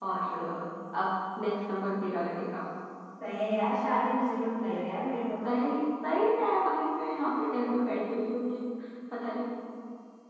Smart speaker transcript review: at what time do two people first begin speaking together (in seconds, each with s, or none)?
none